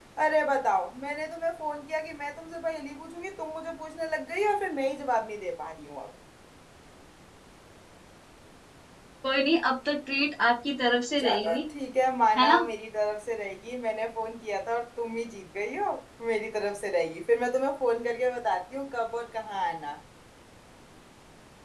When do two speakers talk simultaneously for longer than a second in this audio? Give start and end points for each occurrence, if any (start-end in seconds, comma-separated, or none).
none